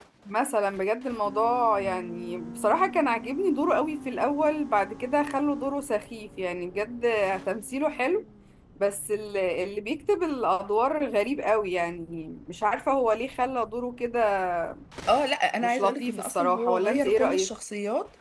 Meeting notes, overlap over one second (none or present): present